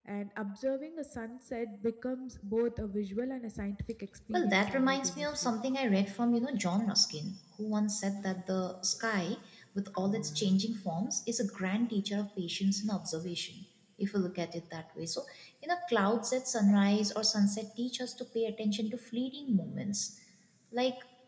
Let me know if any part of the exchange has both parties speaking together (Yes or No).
Yes